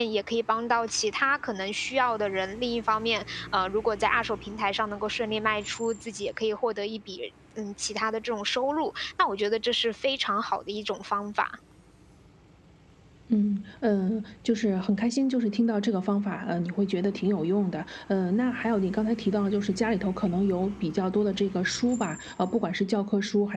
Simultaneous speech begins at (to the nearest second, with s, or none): none